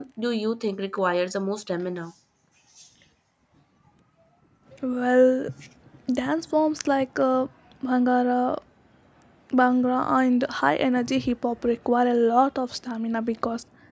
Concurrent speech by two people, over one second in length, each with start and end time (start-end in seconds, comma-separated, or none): none